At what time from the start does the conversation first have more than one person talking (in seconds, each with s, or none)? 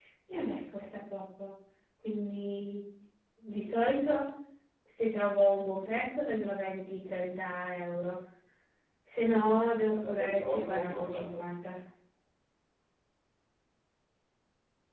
9.9 s